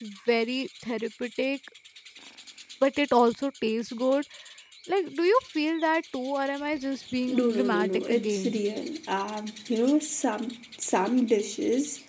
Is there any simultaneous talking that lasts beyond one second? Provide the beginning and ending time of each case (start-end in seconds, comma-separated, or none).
7.3-8.6